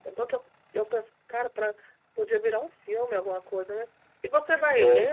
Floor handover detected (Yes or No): No